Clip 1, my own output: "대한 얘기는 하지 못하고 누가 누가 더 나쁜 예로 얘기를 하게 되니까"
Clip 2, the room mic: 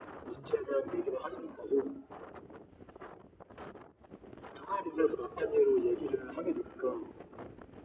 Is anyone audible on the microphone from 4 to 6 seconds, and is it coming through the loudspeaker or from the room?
echo only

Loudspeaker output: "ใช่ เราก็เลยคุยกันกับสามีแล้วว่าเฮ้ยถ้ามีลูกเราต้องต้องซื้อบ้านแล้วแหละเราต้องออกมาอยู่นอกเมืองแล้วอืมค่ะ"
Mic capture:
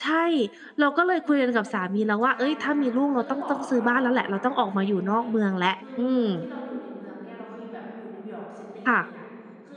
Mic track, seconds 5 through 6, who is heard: both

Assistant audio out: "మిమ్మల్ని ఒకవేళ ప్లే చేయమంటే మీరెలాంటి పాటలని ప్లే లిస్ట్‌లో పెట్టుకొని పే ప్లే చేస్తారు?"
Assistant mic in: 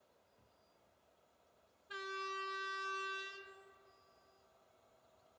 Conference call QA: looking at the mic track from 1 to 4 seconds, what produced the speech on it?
neither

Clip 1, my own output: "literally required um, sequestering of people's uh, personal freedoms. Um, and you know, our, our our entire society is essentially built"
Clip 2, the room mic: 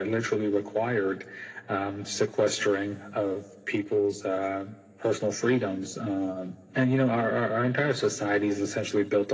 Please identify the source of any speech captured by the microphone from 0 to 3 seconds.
echo only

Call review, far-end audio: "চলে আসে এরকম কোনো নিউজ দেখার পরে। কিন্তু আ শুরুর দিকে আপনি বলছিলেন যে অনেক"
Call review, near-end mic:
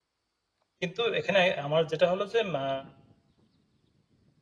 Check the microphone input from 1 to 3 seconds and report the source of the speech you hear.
user only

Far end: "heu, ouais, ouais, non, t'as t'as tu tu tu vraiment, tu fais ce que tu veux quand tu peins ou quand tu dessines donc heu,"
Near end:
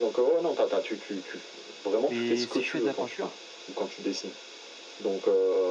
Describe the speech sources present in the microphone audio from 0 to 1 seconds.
echo only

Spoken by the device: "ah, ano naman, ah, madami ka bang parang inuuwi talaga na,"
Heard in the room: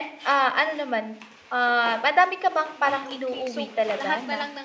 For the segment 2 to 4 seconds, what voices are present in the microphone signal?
both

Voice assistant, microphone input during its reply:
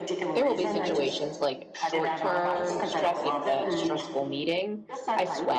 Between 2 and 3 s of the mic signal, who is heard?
both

